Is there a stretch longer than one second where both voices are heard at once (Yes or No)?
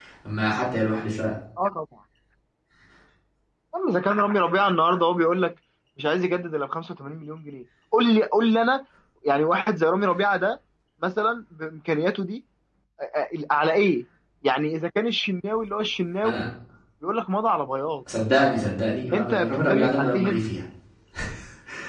Yes